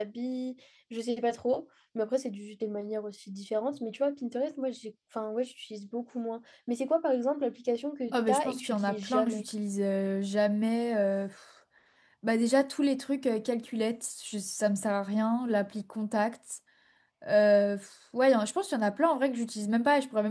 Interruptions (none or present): present